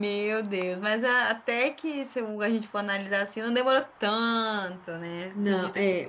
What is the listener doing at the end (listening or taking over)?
taking over